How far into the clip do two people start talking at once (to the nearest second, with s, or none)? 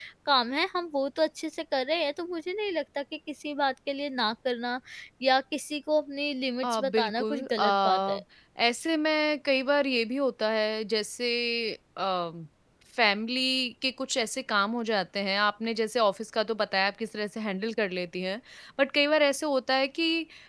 7 s